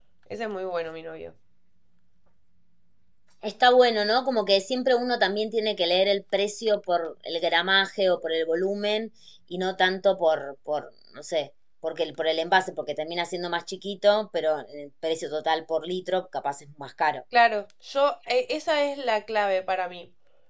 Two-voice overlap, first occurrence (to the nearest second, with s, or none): none